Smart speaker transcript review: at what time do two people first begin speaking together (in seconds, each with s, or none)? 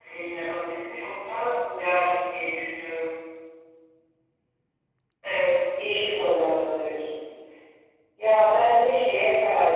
none